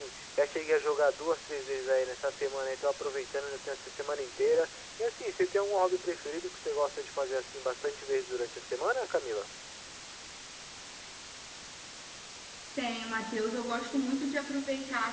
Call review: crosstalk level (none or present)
none